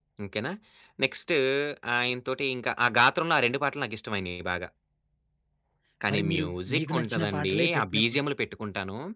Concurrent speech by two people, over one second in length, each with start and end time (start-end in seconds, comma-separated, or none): 6.1-8.2